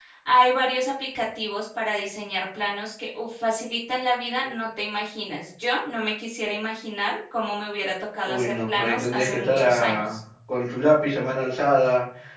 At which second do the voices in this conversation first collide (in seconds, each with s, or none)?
8.2 s